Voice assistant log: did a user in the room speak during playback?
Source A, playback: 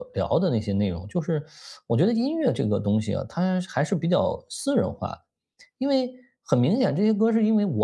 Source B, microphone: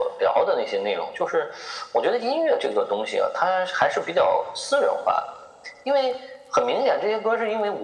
No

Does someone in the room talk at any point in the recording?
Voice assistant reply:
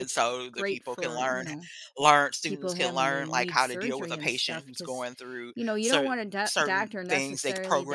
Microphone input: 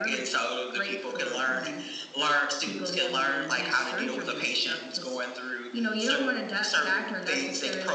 No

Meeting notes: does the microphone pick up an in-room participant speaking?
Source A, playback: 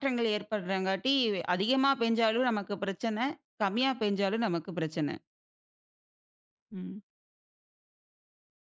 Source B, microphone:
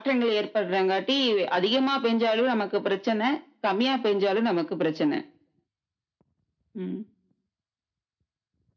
No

